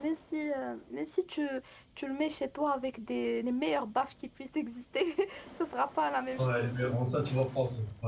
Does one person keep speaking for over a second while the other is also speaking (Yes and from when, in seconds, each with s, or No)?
No